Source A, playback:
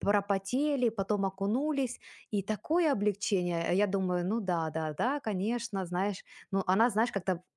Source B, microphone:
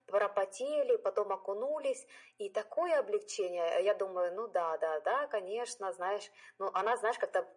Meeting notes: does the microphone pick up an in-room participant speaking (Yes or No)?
No